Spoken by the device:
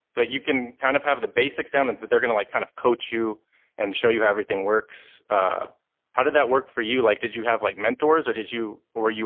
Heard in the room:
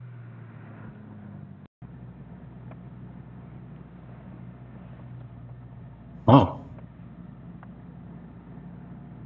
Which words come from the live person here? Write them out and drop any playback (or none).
Oh,